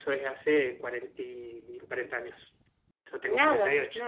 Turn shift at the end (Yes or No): Yes